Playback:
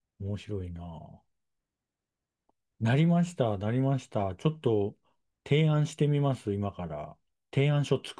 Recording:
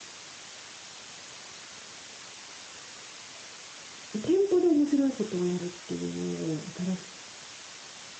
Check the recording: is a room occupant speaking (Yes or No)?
Yes